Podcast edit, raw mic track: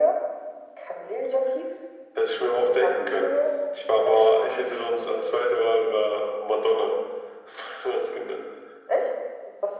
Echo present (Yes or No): Yes